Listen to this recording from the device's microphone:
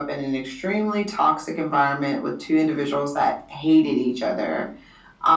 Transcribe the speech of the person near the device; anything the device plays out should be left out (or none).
none